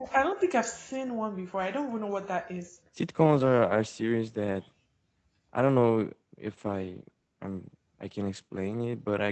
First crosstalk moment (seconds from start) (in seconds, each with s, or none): none